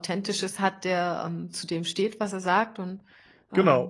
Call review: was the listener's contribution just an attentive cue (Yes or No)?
No